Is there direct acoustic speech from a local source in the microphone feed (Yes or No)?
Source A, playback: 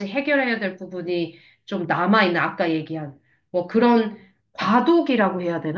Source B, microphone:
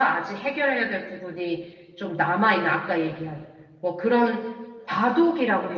No